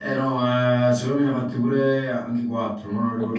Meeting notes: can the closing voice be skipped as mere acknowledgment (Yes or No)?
No